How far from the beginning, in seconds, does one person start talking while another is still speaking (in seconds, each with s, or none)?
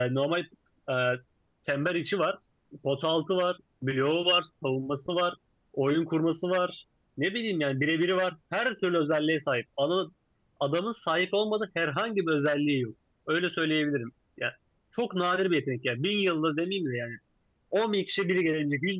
none